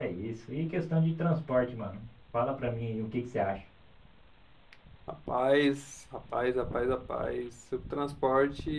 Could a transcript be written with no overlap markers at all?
Yes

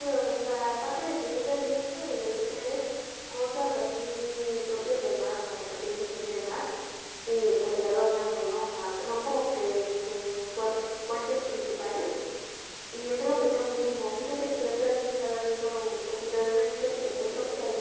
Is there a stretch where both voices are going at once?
No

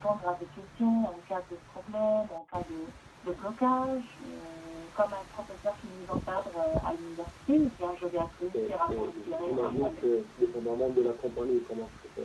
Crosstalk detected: Yes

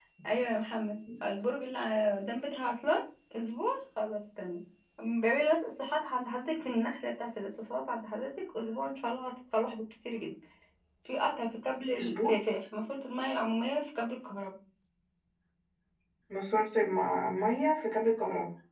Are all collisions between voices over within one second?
Yes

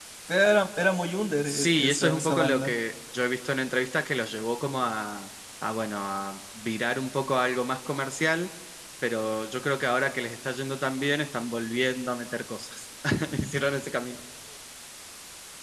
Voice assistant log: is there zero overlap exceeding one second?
No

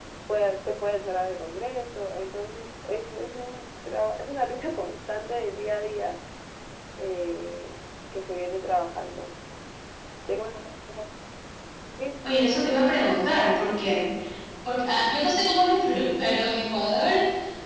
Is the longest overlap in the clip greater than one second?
No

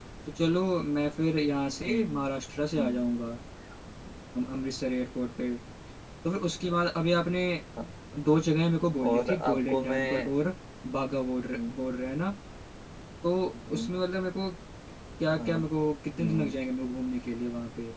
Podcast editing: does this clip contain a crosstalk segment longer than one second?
Yes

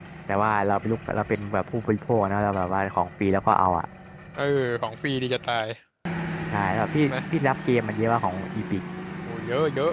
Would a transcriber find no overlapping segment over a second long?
Yes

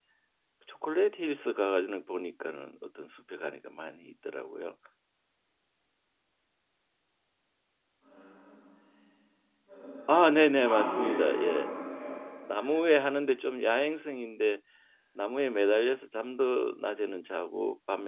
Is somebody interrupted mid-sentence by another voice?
Yes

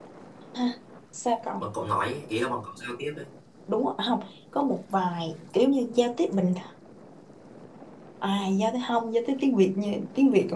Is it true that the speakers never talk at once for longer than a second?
Yes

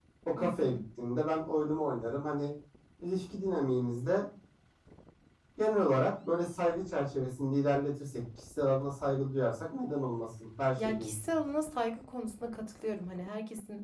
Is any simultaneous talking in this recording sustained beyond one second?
No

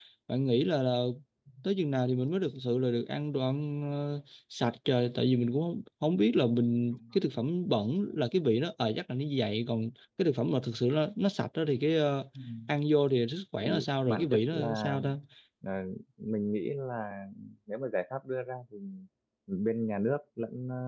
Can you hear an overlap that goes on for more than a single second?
Yes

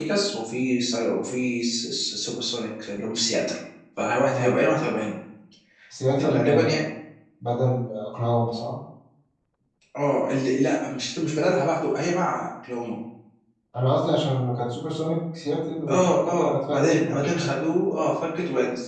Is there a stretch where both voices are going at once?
Yes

